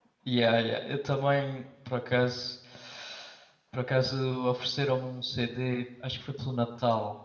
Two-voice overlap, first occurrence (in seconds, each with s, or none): none